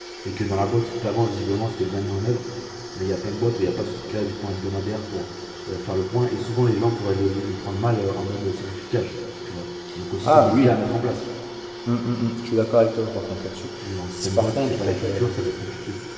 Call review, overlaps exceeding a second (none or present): present